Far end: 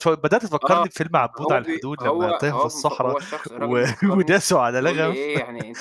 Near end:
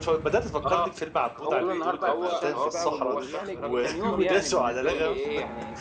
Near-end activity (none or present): present